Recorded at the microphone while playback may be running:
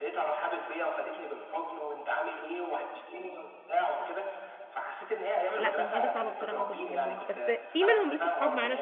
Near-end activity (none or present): present